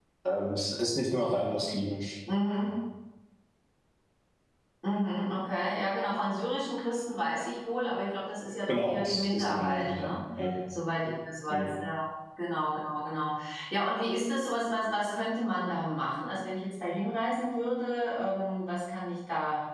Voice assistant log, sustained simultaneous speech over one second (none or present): present